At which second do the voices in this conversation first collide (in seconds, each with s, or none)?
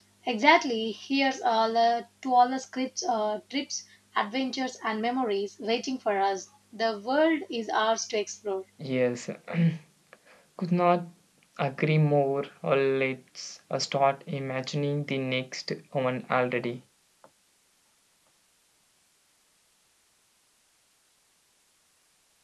none